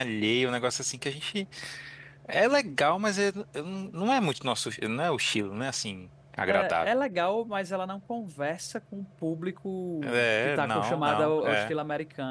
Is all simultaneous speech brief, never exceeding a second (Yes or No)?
No